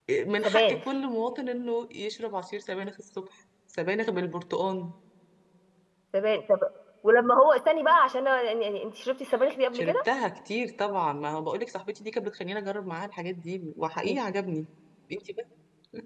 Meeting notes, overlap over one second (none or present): none